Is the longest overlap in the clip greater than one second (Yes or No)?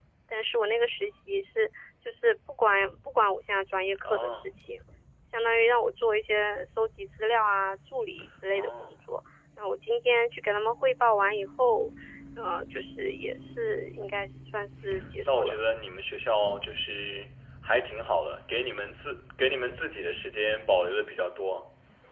No